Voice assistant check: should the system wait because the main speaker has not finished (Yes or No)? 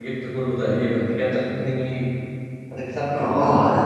No